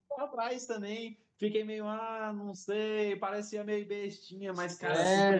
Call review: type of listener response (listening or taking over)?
taking over